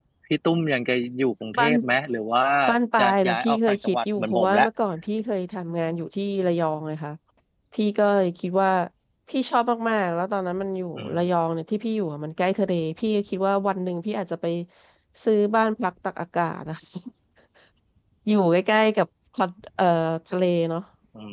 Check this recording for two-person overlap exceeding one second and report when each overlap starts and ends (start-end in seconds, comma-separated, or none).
3.0-4.7